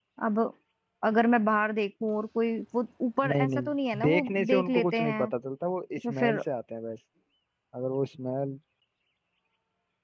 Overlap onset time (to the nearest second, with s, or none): 3 s